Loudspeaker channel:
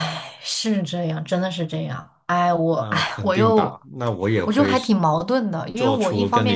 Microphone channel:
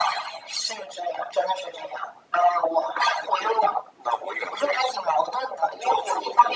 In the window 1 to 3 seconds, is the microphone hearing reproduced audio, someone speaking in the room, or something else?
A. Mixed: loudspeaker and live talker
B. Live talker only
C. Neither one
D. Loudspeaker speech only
D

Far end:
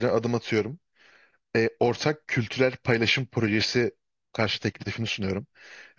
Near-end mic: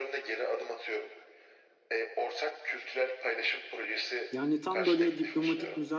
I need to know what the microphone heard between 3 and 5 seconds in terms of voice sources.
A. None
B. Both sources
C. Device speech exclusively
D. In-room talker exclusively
B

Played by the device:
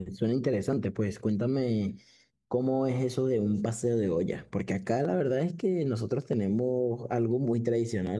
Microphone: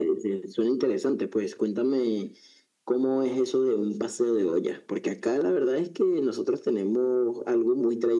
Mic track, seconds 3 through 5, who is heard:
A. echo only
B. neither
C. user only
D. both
A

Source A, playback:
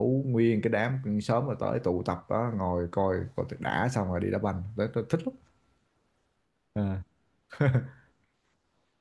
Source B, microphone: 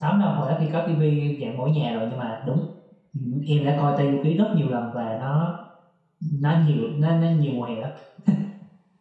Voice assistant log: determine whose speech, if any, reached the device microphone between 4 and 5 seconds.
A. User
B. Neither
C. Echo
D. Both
A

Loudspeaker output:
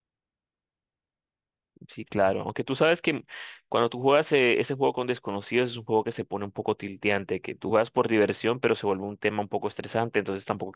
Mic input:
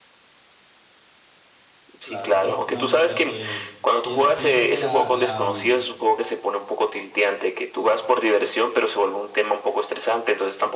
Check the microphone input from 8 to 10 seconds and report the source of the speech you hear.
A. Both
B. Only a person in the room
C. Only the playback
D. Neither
C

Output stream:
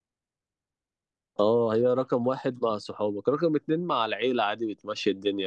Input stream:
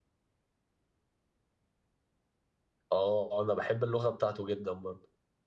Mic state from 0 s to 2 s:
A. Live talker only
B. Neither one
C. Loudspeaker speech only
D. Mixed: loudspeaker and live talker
B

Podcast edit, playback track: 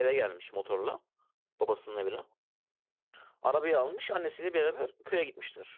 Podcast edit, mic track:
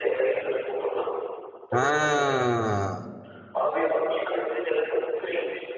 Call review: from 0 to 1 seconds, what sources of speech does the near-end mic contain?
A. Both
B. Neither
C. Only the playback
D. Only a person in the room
C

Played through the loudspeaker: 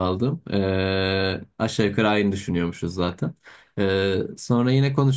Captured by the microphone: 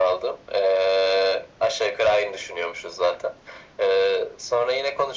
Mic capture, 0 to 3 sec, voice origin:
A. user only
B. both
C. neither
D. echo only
D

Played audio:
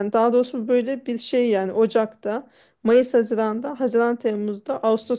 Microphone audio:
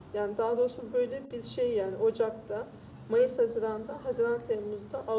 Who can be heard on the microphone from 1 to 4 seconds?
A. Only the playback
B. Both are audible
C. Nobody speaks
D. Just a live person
A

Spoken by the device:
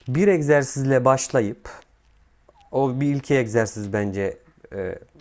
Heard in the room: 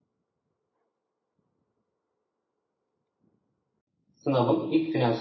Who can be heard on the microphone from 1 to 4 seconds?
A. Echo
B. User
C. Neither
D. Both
C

